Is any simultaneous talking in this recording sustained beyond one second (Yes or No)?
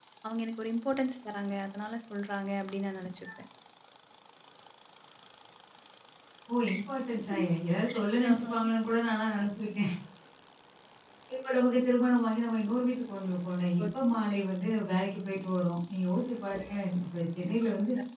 No